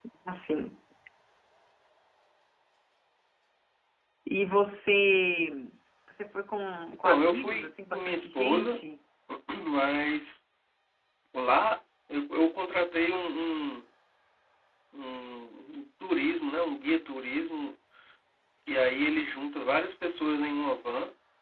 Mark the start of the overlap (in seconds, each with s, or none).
7.0 s